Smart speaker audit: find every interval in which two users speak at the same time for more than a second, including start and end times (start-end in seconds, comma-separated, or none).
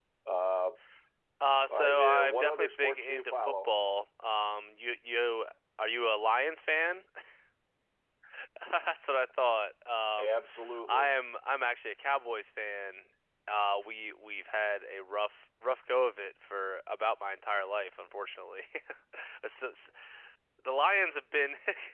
1.7-3.7